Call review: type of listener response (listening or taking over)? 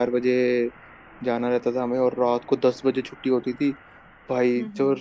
listening